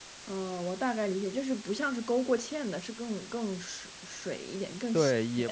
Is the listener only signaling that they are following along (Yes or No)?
No